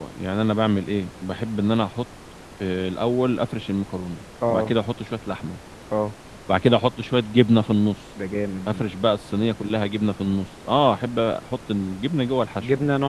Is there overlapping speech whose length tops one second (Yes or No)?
No